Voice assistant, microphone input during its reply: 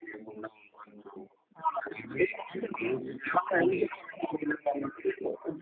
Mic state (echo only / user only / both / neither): echo only